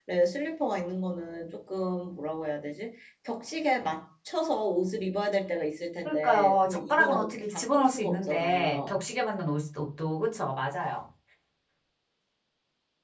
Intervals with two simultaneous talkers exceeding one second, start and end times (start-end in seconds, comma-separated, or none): 6.0-8.9